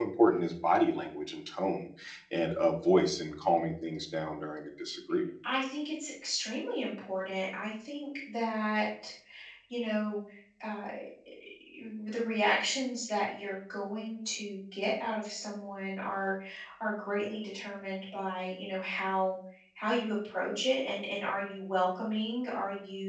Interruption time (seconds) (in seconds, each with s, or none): none